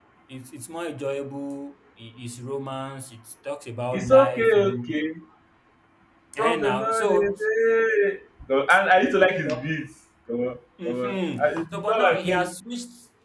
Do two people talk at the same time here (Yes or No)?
Yes